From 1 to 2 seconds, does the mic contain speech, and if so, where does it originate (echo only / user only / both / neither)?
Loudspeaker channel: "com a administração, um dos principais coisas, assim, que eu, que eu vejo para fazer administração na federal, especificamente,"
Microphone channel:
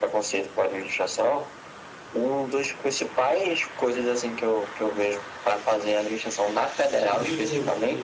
echo only